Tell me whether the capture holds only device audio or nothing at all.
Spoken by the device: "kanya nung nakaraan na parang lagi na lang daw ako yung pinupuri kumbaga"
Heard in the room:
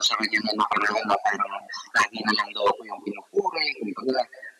Yes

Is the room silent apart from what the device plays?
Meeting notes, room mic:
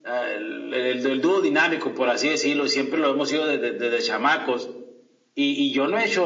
Yes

